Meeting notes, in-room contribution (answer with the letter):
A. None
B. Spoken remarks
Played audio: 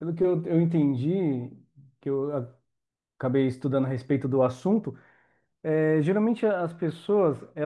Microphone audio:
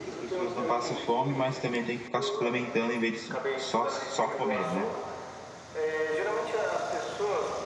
B